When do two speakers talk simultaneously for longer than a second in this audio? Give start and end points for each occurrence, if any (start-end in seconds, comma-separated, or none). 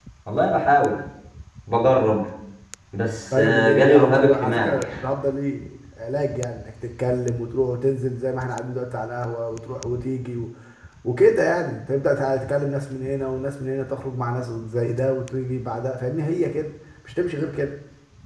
3.4-4.8